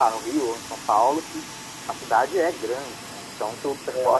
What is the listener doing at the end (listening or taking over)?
taking over